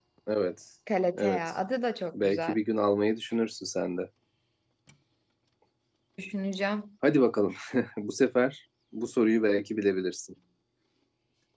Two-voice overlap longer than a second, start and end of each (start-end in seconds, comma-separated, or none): none